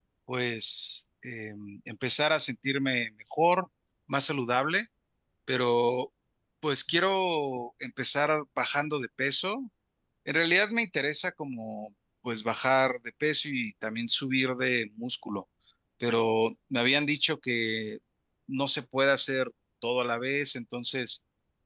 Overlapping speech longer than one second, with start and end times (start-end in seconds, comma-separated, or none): none